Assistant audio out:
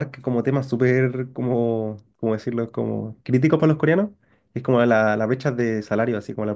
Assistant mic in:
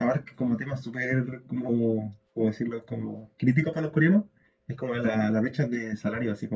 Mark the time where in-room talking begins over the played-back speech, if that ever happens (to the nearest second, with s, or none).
none